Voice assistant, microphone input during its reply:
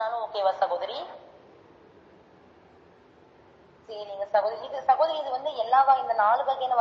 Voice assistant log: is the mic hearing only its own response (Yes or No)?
Yes